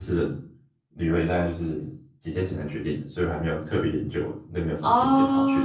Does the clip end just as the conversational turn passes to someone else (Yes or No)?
Yes